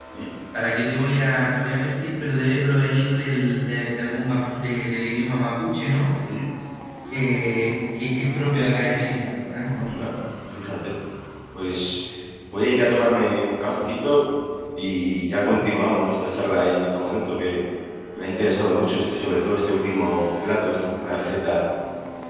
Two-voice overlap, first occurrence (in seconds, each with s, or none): none